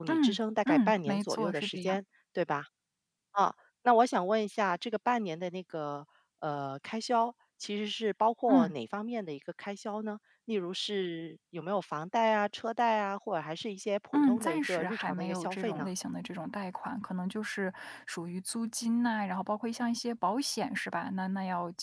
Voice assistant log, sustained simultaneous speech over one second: present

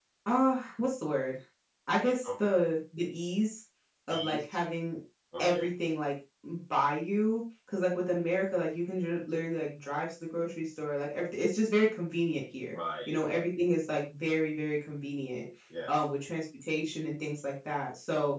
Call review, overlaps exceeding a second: none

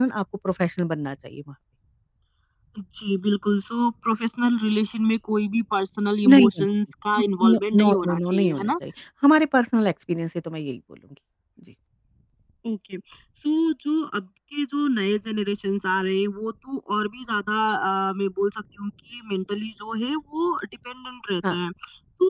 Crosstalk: present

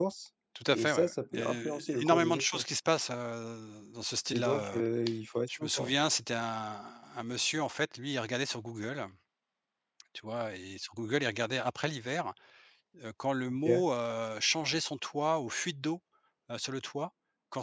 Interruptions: present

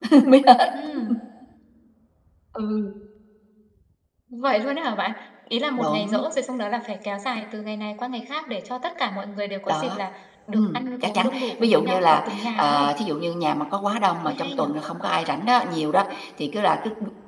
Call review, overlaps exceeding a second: present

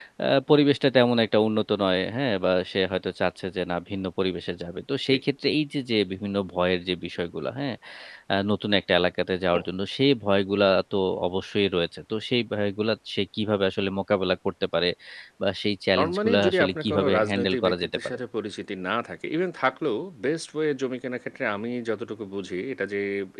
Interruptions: present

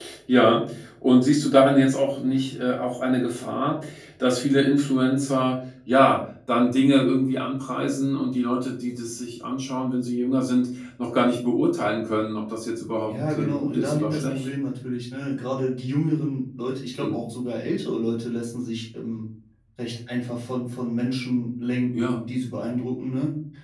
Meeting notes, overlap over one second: present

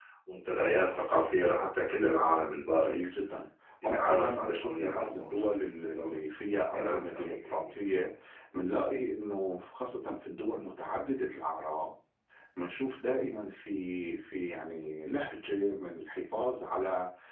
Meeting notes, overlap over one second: present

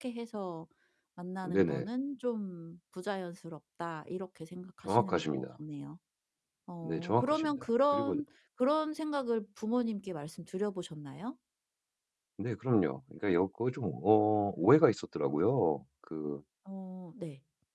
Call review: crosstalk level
present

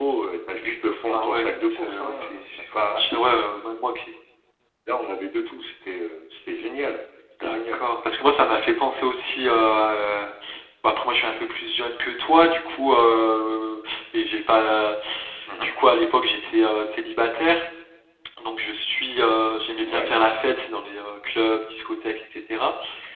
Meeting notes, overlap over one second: present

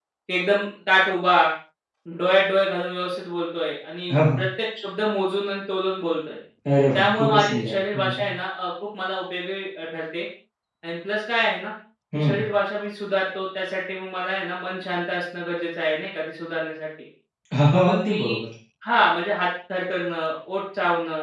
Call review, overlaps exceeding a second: present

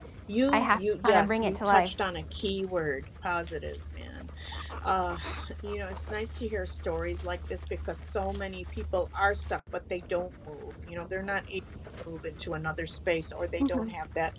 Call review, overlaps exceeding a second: present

